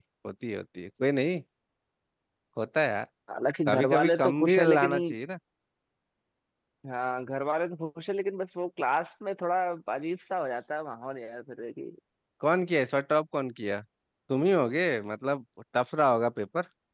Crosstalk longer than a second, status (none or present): present